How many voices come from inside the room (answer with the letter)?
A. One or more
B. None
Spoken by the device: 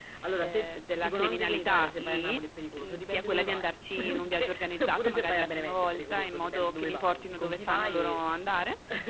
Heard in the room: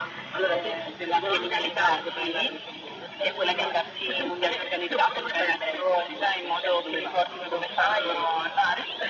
B